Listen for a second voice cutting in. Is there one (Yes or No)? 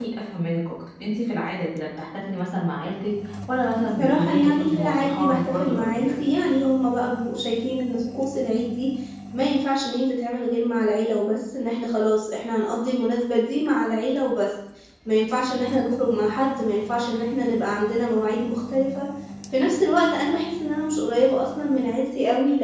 Yes